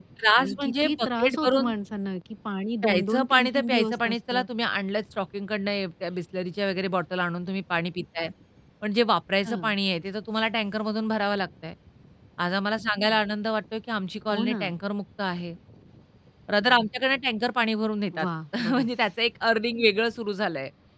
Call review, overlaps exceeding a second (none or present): present